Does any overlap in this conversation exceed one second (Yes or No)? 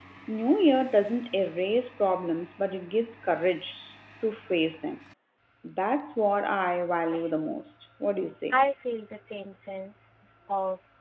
No